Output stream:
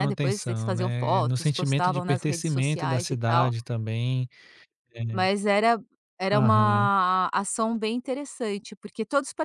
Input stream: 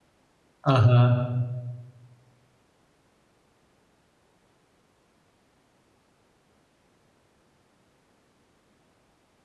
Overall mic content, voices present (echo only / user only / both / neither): user only